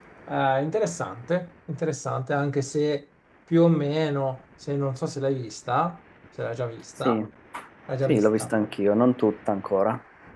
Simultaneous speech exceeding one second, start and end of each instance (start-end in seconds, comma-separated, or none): none